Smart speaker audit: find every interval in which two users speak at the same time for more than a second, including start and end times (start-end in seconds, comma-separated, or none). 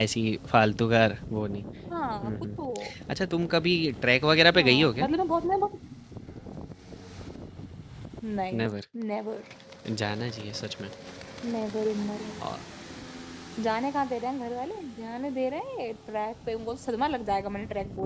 none